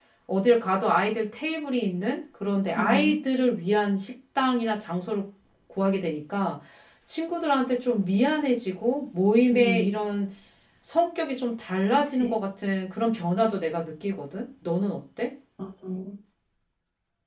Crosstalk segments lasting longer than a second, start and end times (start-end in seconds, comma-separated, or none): none